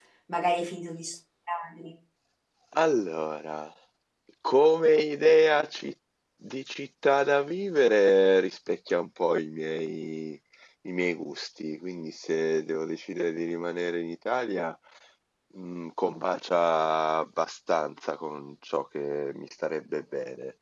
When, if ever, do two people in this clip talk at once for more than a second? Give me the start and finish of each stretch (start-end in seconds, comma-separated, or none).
none